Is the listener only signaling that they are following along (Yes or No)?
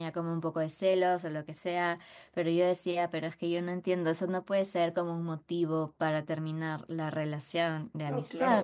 No